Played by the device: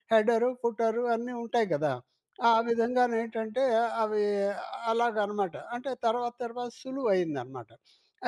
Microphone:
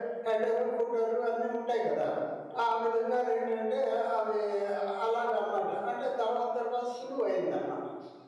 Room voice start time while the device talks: none

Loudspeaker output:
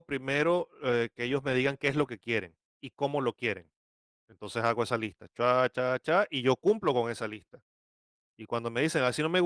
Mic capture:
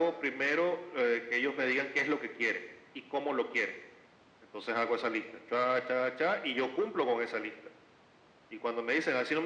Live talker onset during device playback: none

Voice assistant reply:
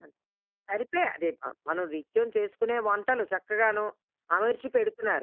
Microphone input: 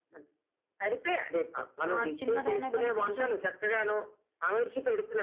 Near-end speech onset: 1.9 s

